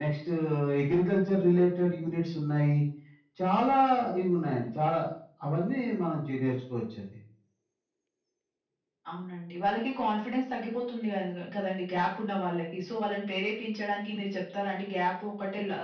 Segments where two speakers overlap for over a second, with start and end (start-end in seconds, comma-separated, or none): none